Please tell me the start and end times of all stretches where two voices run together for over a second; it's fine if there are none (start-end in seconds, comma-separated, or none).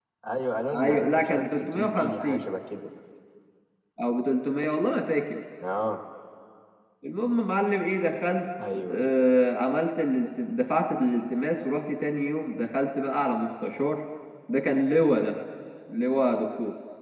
0.7-2.5